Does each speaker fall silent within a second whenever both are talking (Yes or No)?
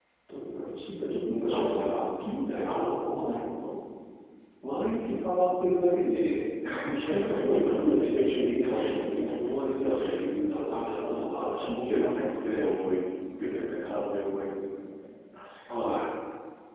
No